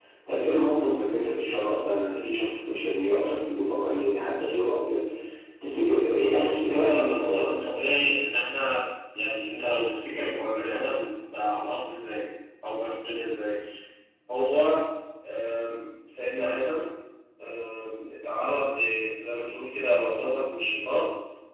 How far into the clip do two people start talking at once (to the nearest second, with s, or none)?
6 s